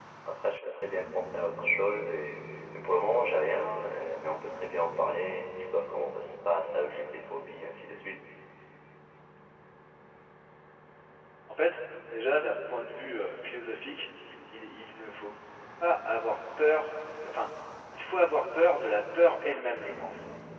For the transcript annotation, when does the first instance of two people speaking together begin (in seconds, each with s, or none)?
none